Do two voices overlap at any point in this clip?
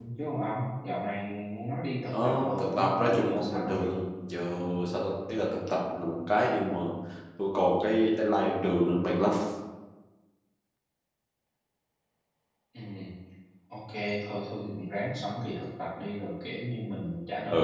Yes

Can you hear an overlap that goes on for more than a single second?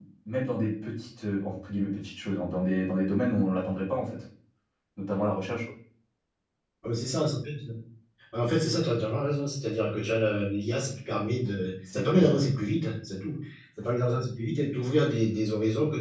No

